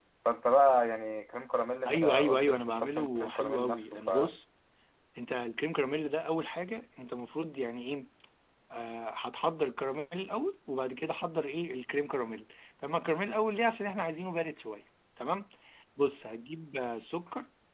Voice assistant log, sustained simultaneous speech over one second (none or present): present